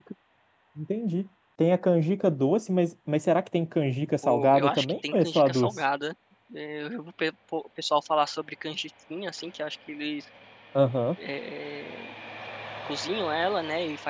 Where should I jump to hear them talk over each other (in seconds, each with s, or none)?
4.2 s